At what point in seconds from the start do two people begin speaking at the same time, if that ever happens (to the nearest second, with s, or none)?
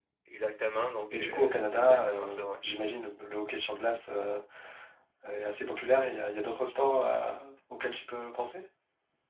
1 s